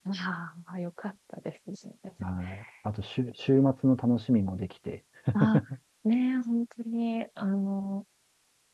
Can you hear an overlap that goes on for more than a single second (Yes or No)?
No